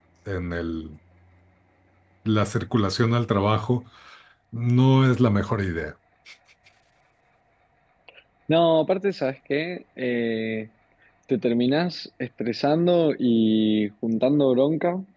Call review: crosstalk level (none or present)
none